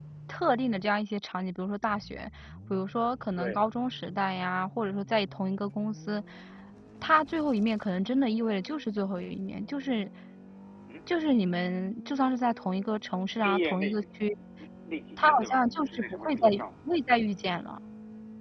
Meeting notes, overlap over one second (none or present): present